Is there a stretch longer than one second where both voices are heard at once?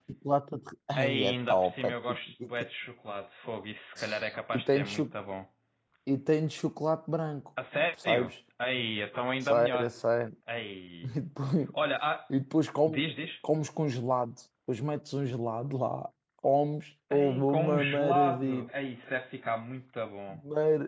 Yes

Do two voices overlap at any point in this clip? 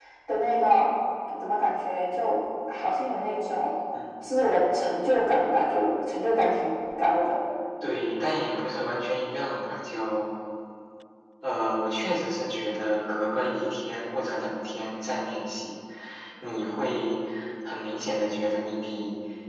No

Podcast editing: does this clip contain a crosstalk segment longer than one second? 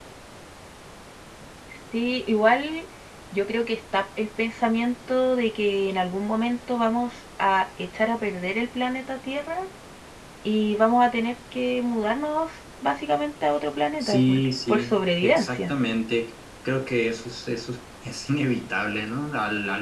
Yes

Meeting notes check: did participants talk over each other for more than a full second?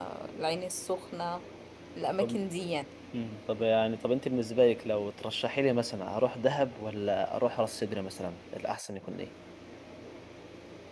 No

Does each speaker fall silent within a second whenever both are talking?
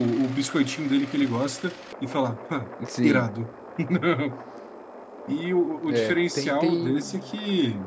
No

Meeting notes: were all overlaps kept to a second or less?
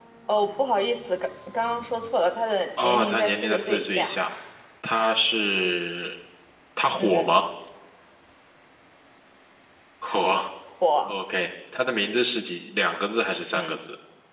No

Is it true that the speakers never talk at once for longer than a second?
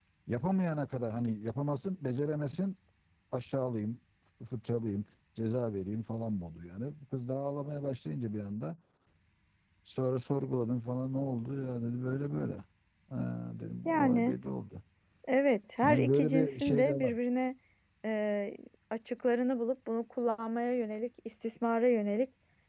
No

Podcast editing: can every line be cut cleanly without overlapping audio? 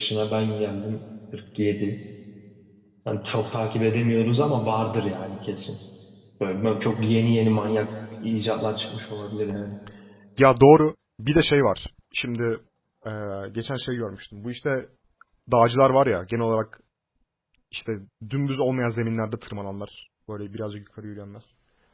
Yes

